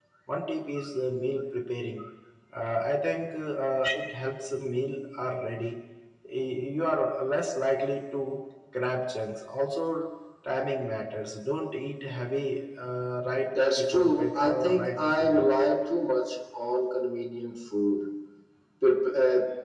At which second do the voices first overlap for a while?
14 s

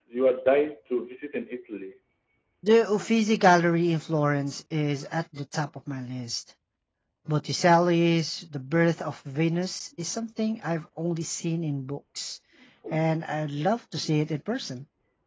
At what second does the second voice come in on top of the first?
none

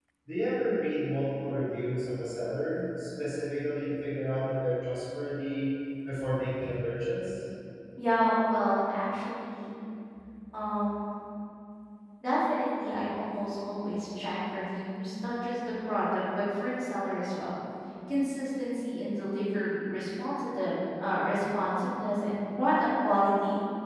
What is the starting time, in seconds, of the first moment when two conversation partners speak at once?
none

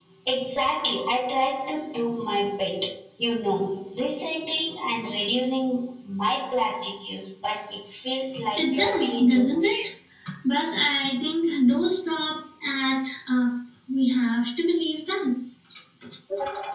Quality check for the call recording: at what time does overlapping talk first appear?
9 s

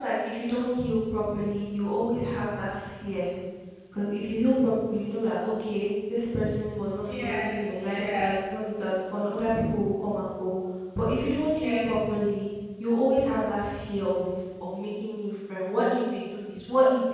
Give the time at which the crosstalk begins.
7 s

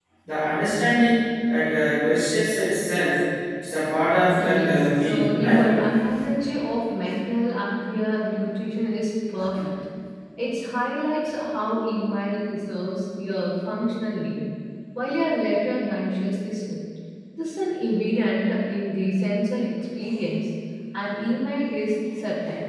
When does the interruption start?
4 s

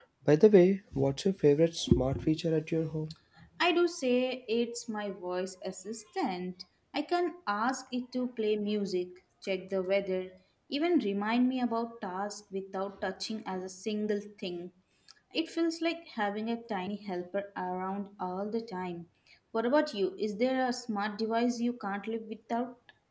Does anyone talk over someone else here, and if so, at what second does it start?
none

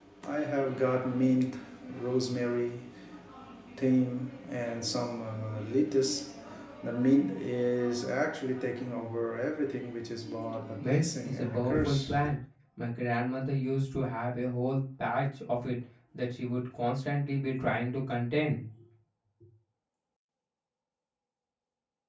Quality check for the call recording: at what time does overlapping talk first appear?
11 s

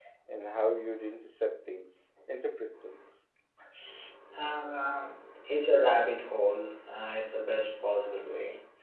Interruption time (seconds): none

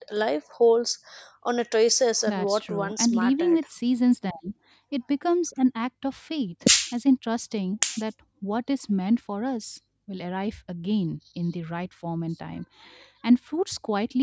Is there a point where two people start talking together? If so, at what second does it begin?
2 s

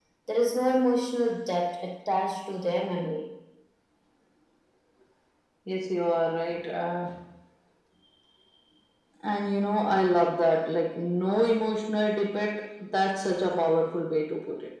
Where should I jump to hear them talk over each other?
none

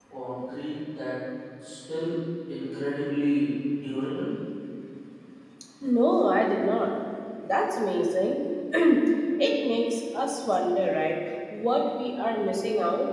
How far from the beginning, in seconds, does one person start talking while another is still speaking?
none

